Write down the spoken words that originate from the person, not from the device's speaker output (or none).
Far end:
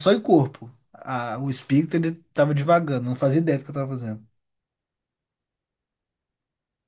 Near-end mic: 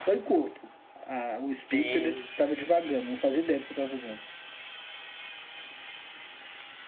Tem.